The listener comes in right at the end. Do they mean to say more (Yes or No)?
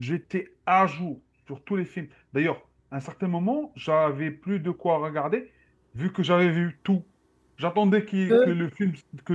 No